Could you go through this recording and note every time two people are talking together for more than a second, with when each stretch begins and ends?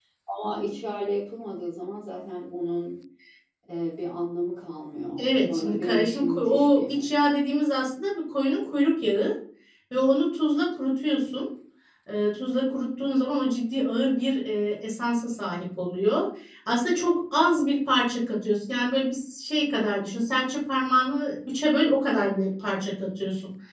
5.2-7.1

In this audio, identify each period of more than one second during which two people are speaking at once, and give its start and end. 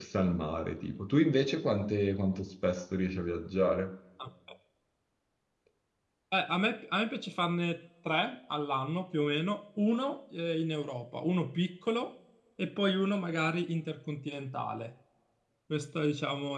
none

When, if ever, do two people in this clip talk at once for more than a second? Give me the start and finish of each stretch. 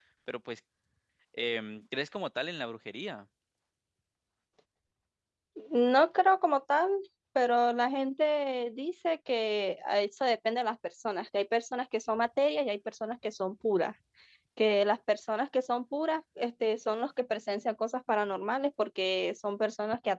none

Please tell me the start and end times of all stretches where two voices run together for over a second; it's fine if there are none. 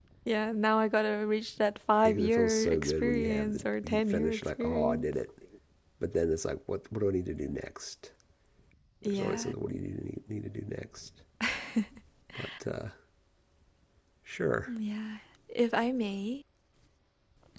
2.0-5.1

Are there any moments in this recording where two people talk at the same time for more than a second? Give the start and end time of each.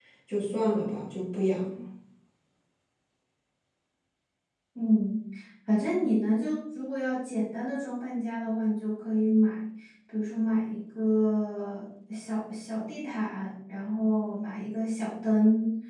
none

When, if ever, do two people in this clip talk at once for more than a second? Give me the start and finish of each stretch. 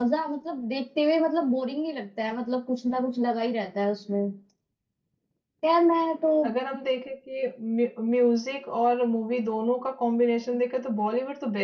none

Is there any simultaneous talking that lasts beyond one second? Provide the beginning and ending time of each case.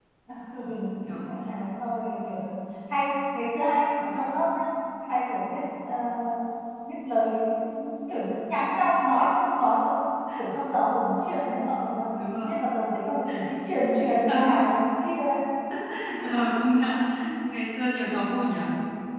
none

